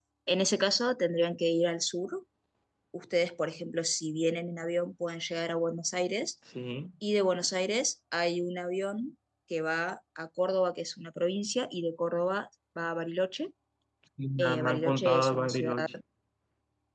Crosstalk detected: Yes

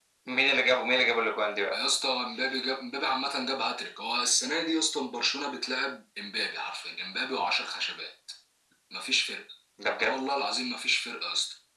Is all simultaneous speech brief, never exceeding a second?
Yes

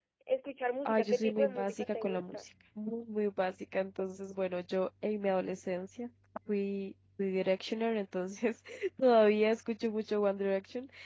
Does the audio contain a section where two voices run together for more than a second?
Yes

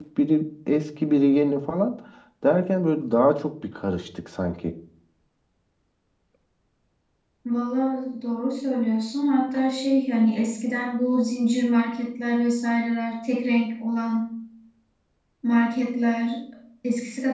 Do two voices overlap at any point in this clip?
No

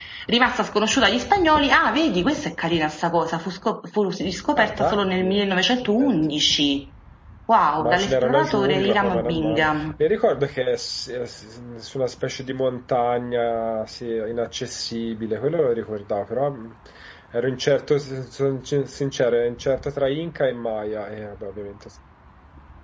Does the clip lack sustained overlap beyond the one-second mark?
No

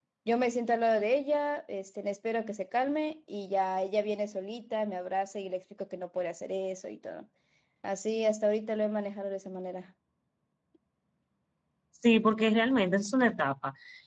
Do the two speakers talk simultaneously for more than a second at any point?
No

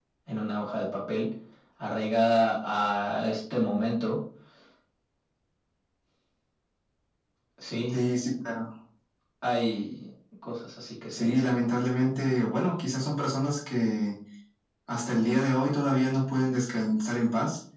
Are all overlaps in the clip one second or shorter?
Yes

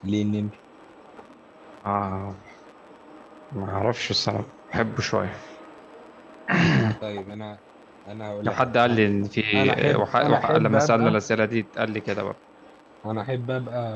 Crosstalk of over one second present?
Yes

